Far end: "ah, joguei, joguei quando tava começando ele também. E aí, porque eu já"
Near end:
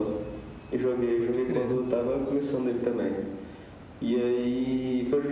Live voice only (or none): Pode crer.